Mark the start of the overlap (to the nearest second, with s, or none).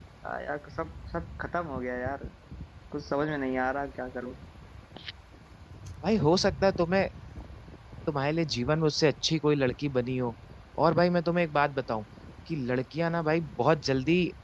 none